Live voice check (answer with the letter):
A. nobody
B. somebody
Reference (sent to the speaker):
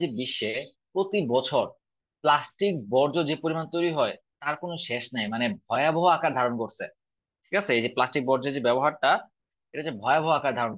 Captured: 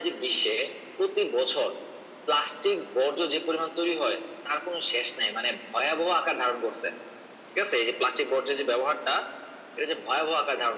A